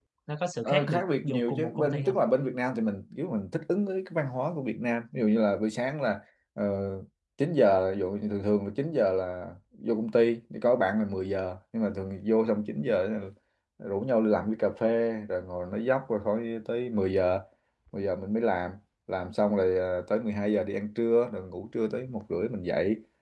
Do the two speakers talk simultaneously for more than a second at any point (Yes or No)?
Yes